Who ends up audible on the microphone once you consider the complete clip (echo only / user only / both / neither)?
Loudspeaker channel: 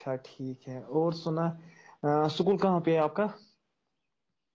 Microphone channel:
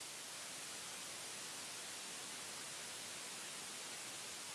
neither